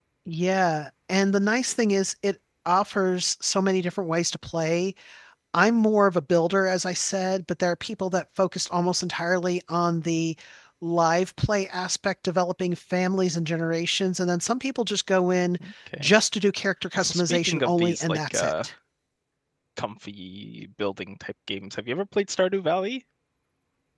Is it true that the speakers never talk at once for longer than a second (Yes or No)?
No